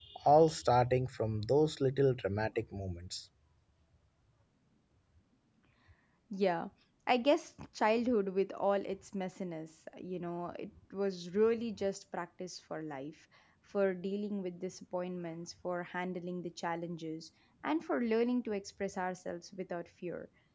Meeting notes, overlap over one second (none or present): none